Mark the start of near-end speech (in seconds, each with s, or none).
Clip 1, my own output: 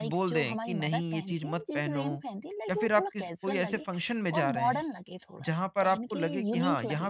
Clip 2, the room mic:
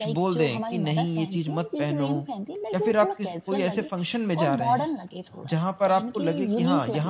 none